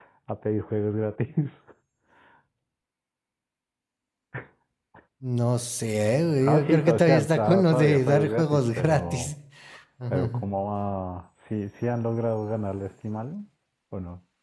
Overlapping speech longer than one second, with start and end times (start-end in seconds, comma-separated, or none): 6.5-9.3